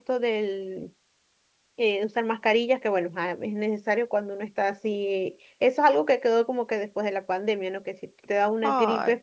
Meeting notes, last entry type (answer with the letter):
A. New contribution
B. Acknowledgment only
B